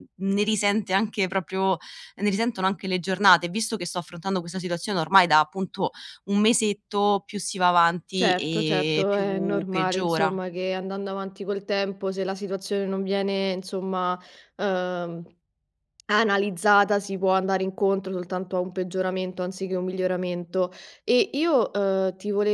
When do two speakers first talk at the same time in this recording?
8 s

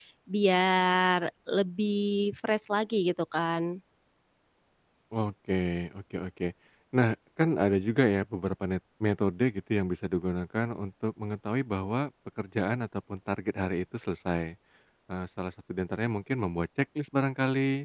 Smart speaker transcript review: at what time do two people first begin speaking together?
none

